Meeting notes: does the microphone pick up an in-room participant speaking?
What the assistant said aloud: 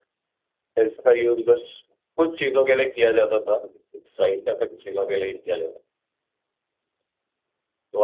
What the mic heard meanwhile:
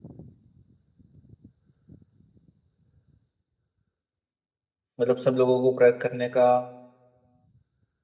Yes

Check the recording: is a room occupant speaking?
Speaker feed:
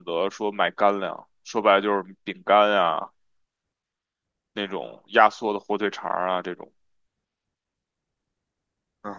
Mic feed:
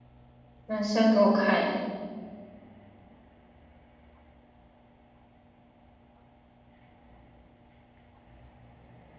Yes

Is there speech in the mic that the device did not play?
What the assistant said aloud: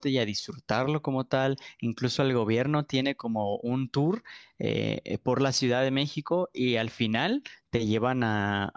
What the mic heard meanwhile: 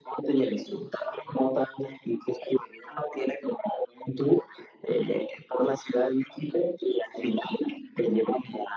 No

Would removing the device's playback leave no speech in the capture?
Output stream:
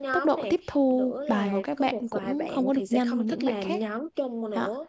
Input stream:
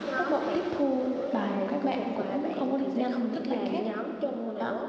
Yes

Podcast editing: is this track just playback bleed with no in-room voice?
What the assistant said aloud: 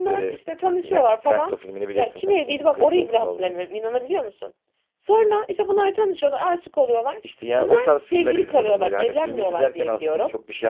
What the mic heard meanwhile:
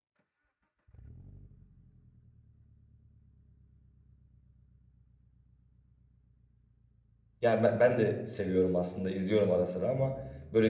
No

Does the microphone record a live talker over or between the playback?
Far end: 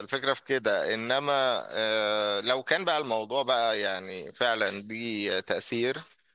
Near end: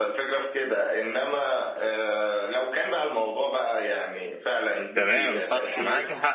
Yes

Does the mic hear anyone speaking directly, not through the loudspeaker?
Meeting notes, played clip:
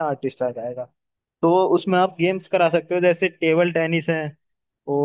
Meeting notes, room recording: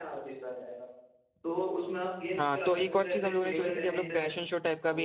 Yes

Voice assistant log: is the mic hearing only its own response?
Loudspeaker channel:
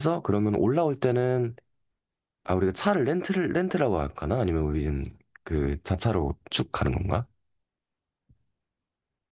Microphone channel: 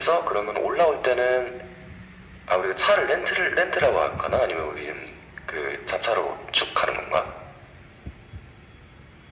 Yes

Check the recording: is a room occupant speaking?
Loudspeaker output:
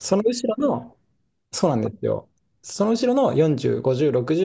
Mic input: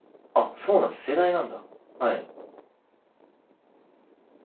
Yes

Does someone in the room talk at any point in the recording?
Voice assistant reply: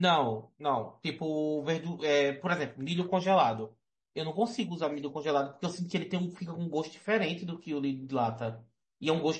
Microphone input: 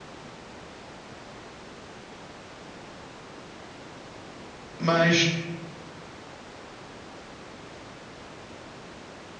Yes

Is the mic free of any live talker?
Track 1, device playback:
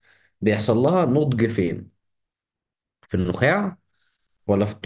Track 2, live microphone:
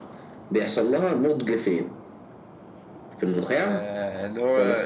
No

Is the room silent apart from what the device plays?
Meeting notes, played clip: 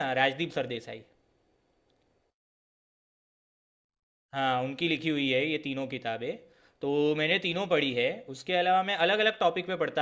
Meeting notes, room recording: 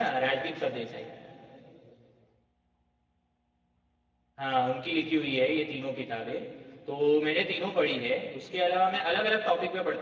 Yes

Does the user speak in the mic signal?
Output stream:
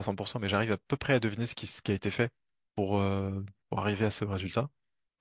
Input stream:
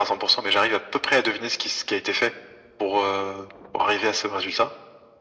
No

